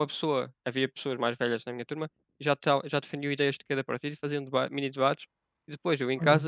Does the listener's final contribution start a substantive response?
No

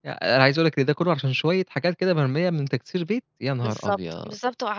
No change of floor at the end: No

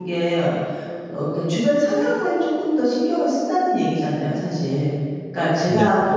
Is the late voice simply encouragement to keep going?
Yes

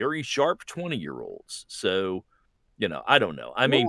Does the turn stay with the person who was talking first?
No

